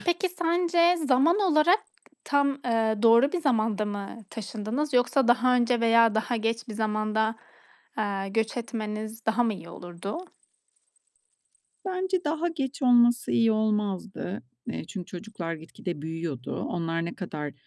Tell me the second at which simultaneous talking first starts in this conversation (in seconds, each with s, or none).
none